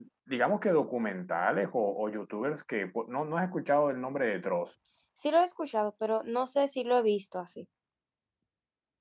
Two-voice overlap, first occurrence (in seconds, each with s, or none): none